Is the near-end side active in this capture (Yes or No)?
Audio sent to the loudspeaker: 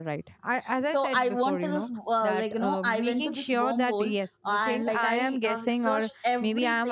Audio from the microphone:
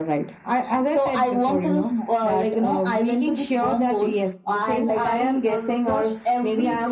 No